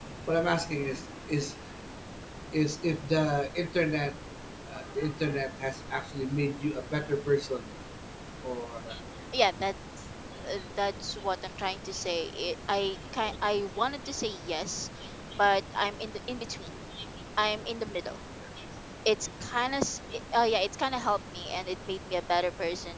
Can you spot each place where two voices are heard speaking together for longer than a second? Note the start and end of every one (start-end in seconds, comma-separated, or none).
none